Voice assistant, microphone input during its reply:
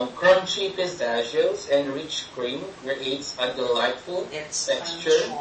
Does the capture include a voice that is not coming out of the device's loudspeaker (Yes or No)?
Yes